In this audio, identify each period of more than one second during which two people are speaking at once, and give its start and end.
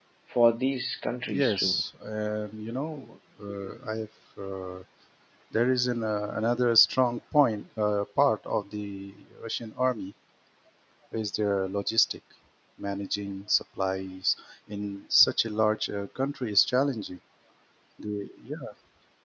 none

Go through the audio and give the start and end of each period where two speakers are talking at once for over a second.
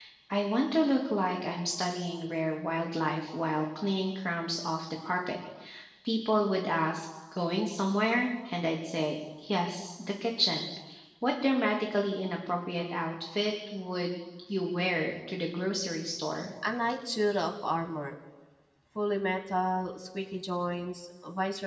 none

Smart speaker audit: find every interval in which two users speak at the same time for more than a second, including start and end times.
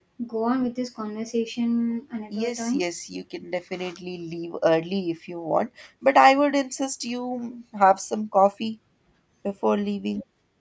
none

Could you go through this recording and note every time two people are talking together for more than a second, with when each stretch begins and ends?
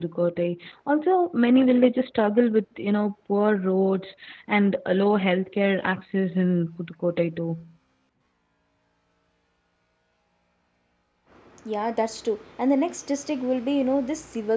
none

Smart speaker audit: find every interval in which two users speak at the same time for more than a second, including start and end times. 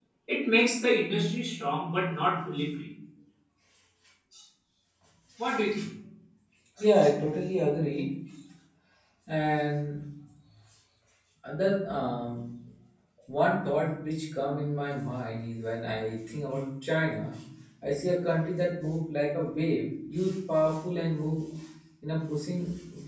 none

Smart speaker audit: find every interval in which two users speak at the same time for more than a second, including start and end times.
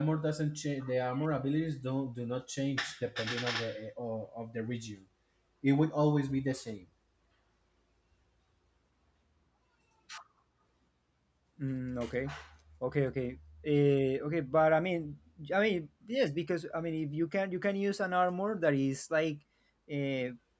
none

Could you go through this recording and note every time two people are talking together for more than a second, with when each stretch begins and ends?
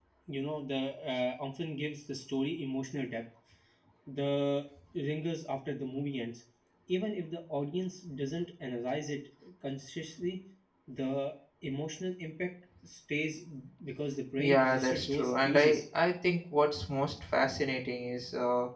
14.4-15.8

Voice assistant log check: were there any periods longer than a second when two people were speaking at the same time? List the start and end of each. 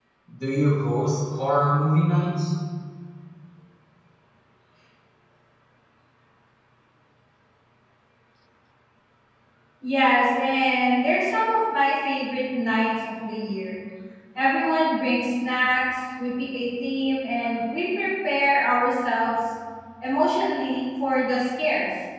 none

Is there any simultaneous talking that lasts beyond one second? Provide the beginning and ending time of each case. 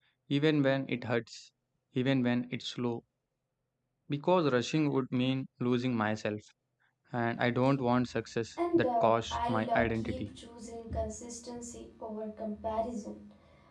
8.8-10.3

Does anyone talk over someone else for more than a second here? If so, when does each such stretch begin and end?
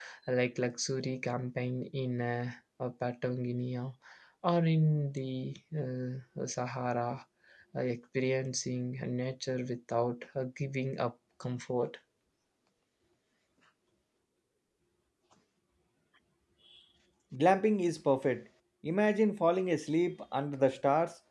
none

